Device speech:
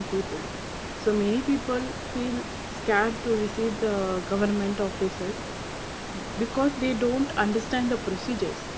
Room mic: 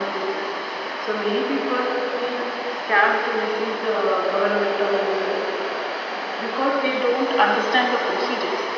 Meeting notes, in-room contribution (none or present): none